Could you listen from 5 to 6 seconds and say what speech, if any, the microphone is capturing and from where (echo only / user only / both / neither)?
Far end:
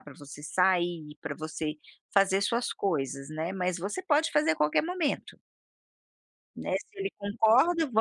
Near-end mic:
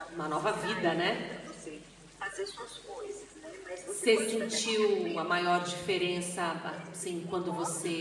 both